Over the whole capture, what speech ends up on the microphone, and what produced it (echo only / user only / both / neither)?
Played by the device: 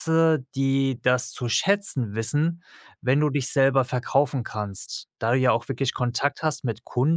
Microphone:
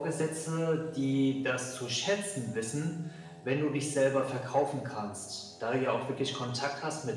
echo only